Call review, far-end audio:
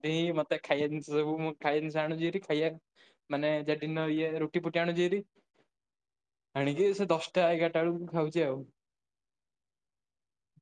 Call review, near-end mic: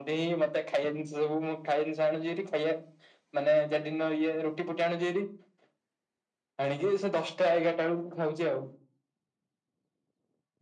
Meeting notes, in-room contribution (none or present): none